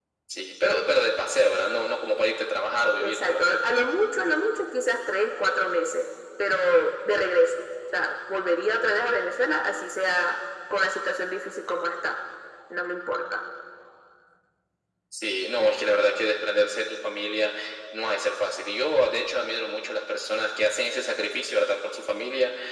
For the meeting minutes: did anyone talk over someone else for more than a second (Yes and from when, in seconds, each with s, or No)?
No